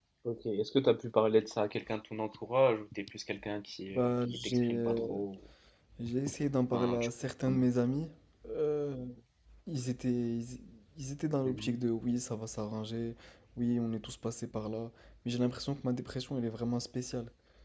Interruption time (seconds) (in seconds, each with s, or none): 3.9 s